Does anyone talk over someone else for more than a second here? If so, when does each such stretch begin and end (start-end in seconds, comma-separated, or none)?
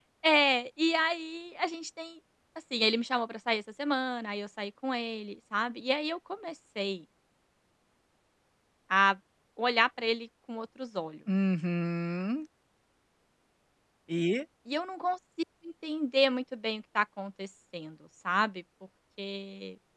none